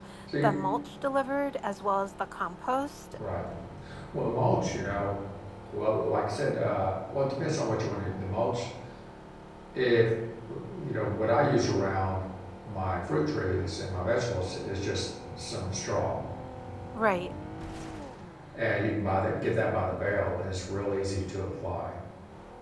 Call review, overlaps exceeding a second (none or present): none